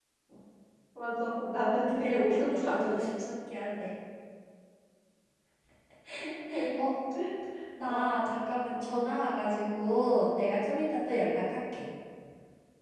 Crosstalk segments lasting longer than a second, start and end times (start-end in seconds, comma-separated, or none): 1.9-3.1